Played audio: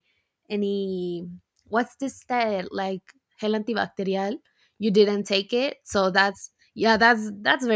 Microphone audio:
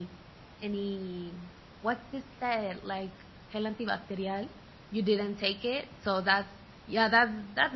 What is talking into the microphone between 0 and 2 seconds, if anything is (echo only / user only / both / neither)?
echo only